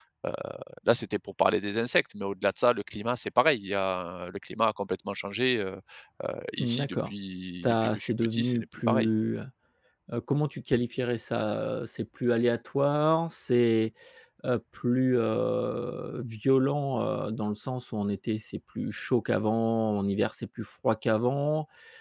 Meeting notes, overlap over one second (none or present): present